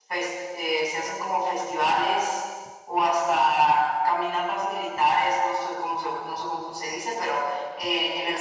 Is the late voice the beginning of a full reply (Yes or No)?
No